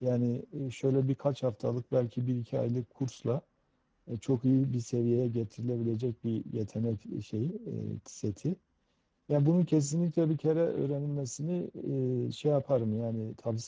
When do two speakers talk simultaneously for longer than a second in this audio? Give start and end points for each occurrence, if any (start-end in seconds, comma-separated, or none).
none